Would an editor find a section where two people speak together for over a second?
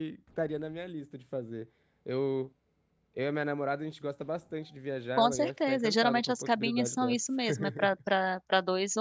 Yes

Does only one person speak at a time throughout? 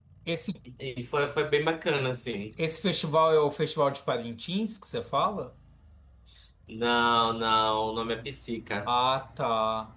Yes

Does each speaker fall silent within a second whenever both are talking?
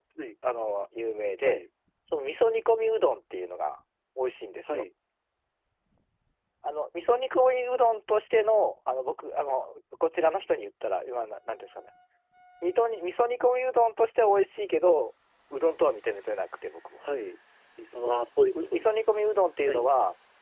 Yes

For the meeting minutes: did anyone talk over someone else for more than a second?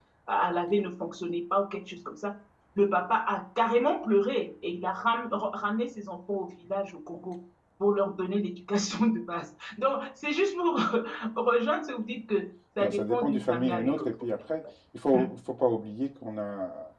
Yes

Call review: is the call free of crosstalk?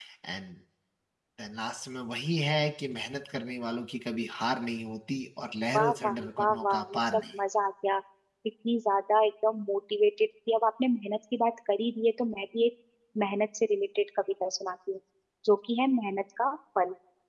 No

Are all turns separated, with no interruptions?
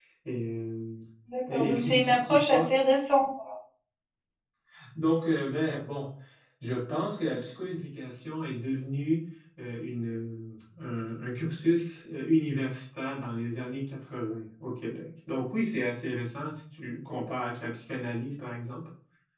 No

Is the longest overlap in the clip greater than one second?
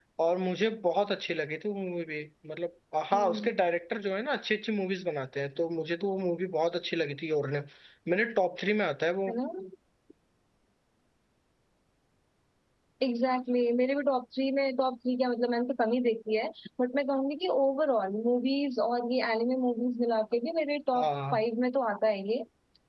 No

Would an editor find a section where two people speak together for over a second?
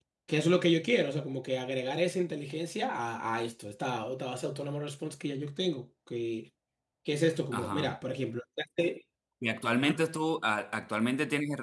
No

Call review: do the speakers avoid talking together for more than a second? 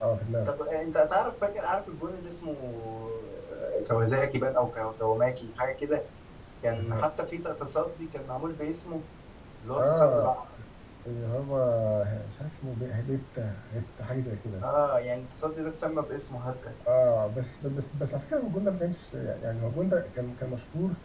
Yes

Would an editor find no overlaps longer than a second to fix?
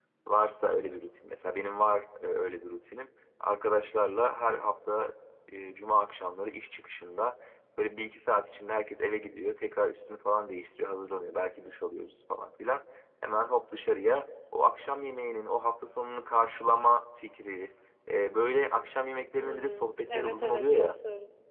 No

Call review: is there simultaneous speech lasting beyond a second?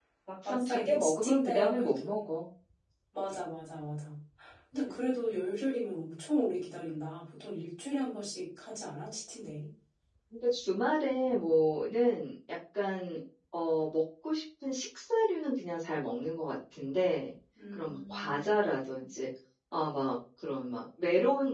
Yes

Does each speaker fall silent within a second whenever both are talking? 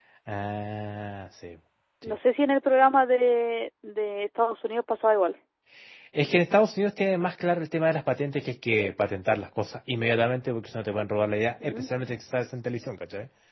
Yes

